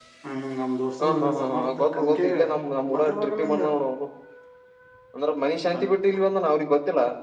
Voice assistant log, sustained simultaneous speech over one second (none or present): present